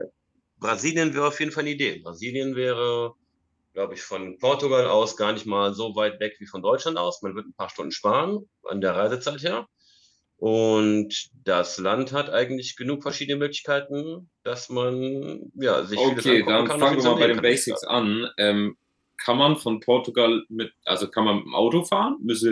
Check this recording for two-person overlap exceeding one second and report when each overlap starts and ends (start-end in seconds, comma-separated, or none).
16.0-17.8